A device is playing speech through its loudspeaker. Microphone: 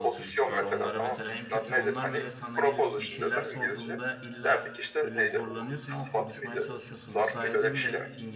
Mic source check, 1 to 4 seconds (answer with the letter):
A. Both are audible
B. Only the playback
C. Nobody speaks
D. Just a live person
A